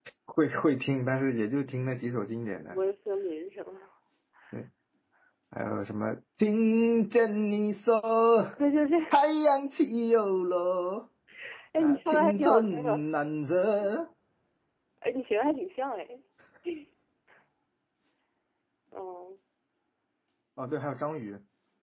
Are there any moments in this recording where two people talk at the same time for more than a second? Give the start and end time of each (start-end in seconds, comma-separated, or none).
11.8-13.1